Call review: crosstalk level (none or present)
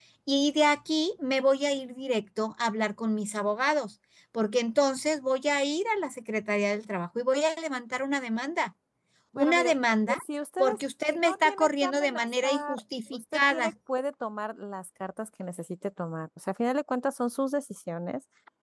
present